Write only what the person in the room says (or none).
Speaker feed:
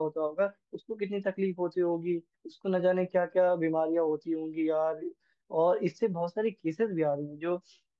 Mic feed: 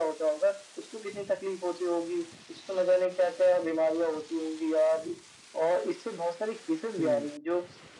अप्रोक्स